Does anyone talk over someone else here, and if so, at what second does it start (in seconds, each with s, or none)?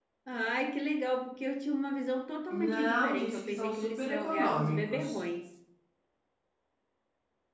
2.5 s